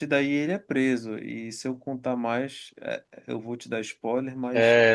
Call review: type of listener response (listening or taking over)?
taking over